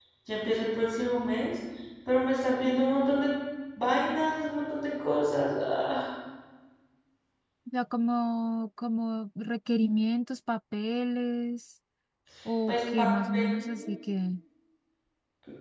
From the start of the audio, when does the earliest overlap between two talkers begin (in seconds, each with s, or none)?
12.7 s